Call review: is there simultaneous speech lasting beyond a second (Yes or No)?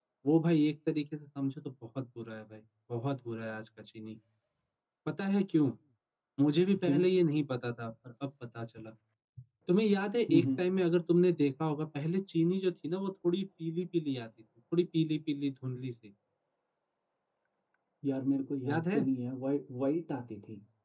No